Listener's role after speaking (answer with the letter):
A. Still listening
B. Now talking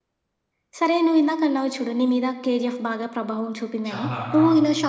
A